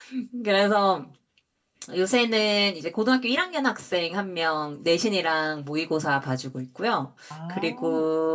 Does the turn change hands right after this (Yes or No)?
No